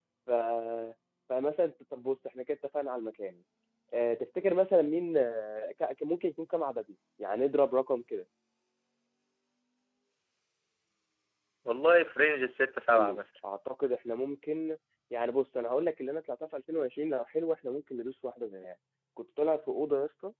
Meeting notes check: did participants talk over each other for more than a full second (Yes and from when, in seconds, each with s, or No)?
No